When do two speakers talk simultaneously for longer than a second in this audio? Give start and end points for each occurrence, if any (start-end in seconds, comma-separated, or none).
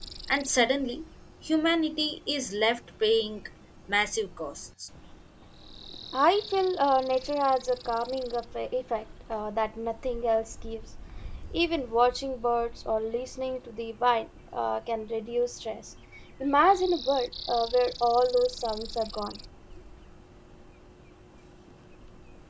none